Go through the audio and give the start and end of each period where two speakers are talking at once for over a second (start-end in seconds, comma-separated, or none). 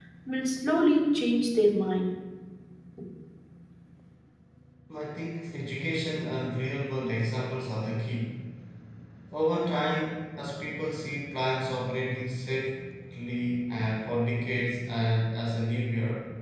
none